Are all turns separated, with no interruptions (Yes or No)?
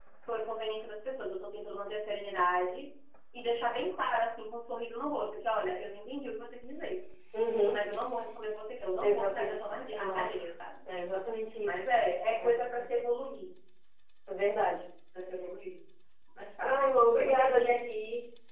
No